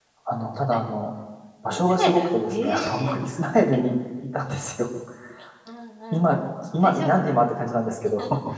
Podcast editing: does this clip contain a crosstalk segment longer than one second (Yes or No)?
Yes